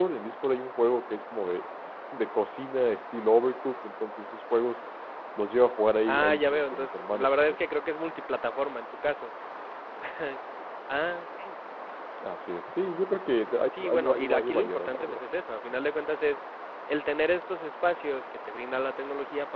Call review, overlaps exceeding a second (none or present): present